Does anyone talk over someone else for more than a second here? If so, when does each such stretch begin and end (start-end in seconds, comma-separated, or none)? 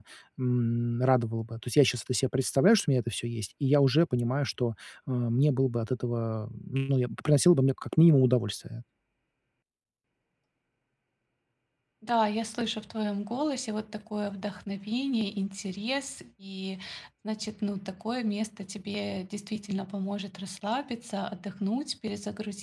none